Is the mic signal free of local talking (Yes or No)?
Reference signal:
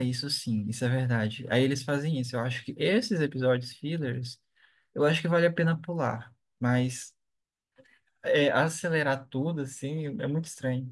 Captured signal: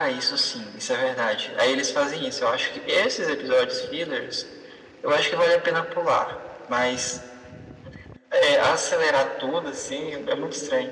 No